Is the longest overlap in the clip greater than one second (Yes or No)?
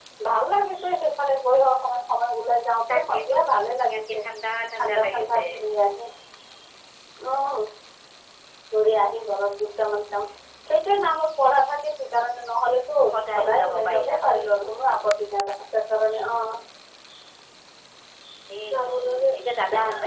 Yes